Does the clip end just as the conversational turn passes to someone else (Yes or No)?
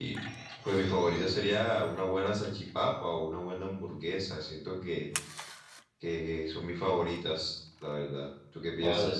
Yes